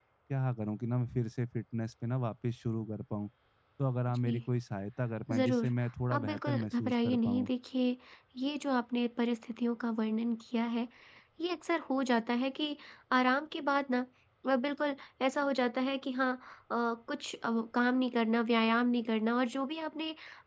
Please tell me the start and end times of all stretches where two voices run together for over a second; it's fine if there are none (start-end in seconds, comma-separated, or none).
6.1-7.5